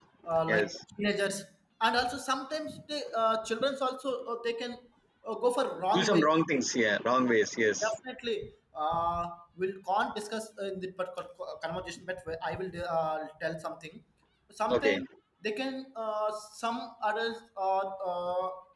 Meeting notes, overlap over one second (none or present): none